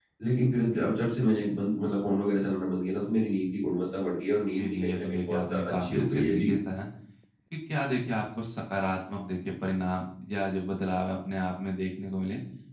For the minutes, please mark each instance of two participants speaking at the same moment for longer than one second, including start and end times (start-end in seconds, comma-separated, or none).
4.6-6.5